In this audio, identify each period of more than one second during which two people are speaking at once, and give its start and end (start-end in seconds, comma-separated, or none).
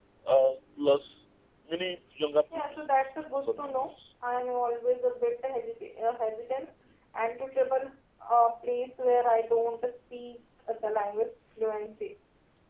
2.5-3.9